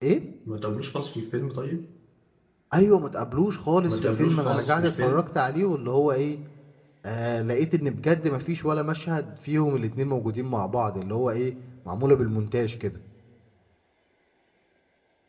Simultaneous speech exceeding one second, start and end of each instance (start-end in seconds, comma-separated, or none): 3.9-5.3